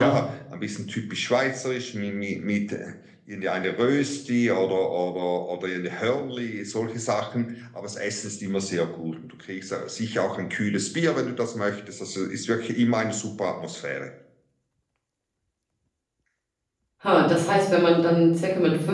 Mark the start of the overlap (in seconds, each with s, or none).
none